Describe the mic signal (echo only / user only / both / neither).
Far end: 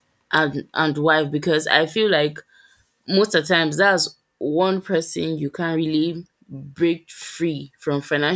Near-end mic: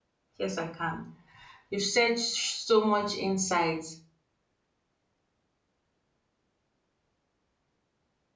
user only